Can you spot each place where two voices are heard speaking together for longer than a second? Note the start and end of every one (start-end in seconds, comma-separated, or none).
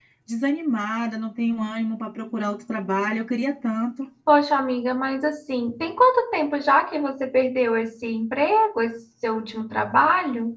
none